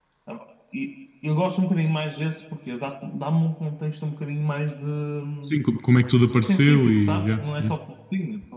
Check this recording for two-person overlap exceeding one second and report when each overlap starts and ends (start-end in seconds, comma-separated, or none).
6.4-7.7